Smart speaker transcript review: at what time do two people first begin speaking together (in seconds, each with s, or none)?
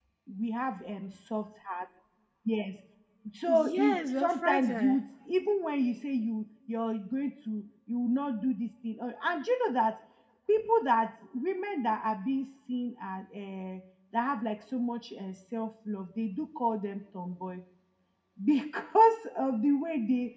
3.5 s